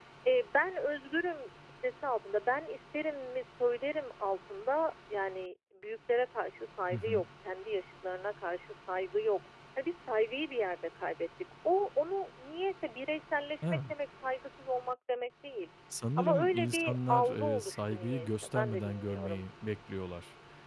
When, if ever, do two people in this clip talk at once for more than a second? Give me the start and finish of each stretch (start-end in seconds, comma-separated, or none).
16.2-19.4